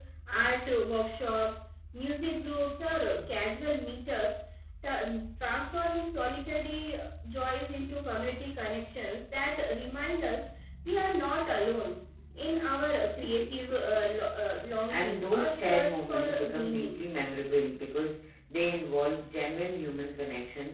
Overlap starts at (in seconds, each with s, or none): 14.9 s